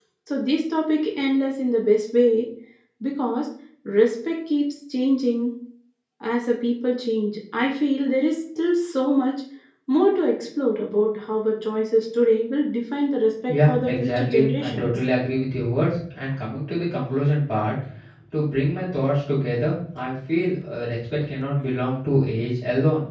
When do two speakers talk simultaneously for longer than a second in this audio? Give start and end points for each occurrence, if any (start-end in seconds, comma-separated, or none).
13.5-14.9